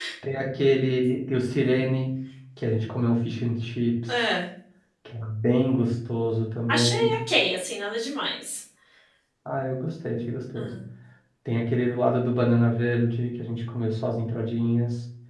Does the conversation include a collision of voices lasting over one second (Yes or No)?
No